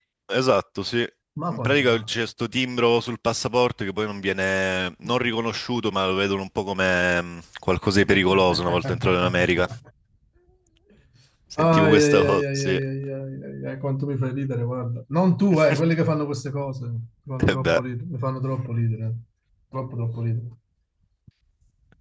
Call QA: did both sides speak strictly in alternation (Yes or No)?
No